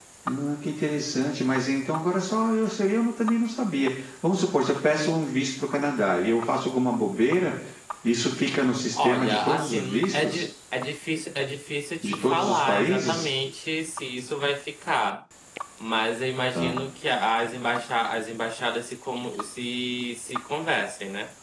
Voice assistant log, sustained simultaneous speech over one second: present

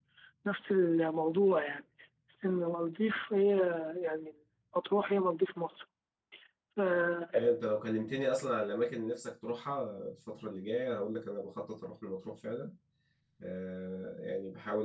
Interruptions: none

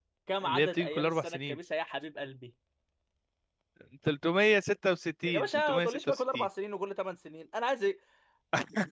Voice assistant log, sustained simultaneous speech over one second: present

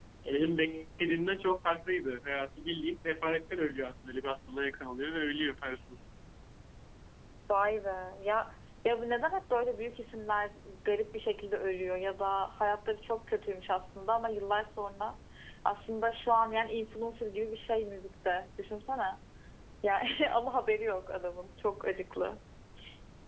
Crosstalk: none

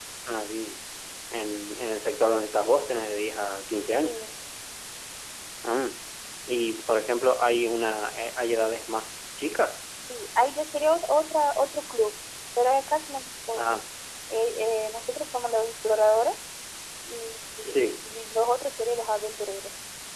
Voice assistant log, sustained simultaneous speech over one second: none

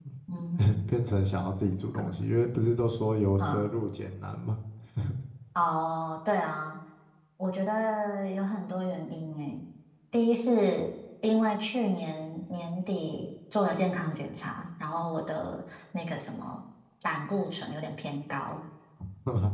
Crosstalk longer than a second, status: none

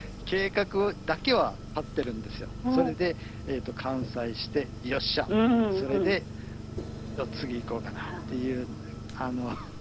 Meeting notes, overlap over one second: none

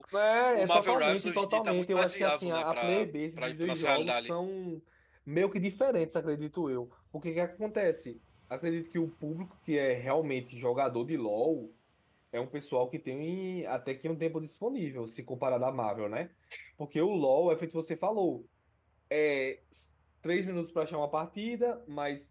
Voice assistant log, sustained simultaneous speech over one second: present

